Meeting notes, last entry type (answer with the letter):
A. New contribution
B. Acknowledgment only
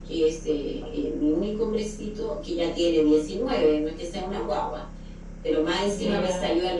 B